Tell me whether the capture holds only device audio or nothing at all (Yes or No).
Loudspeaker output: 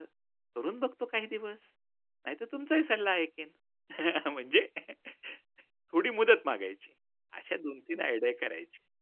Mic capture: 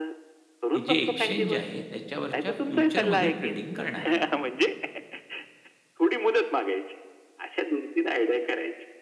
No